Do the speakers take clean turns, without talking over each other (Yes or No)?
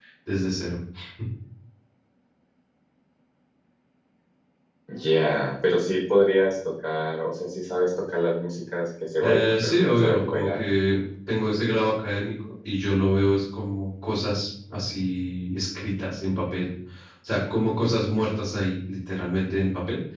No